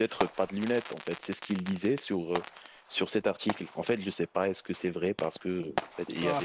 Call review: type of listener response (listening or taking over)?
taking over